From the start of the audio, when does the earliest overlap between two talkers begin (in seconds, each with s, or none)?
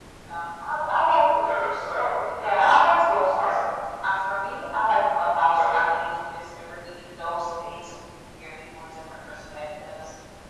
2.3 s